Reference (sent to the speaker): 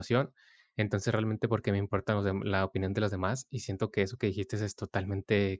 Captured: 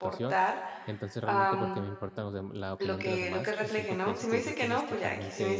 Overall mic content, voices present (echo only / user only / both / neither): both